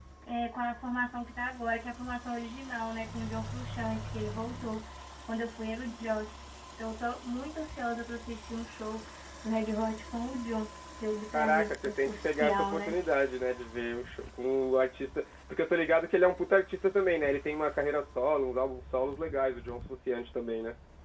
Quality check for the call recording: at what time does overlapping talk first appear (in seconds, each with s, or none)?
11.3 s